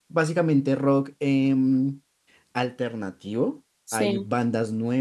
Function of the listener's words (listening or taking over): listening